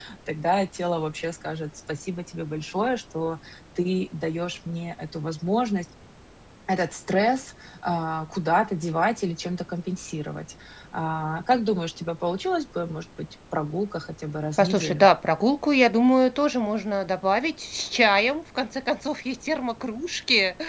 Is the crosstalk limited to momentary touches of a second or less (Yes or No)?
Yes